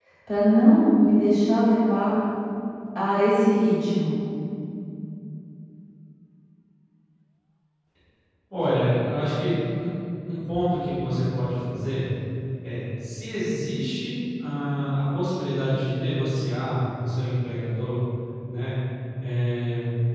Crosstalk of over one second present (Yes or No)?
No